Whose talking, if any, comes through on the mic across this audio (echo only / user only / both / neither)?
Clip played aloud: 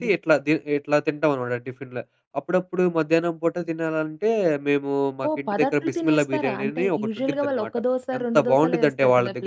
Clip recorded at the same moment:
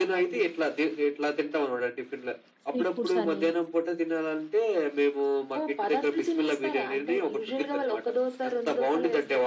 both